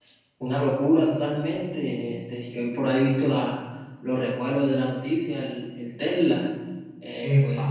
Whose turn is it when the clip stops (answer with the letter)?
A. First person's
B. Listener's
A